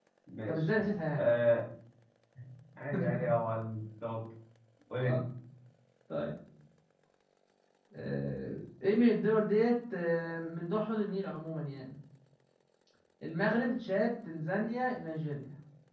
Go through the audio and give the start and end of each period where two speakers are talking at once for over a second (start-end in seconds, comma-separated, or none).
none